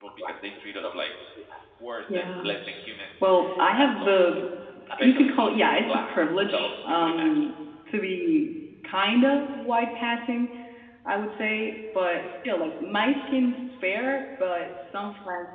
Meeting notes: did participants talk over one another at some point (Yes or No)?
Yes